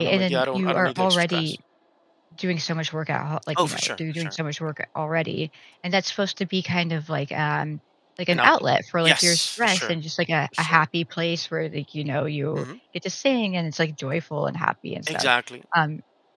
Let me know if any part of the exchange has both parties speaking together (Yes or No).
Yes